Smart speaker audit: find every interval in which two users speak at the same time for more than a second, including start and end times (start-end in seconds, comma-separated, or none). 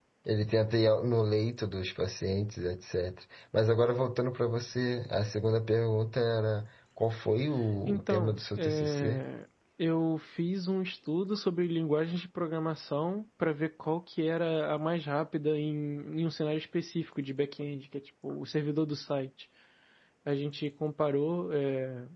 7.9-9.2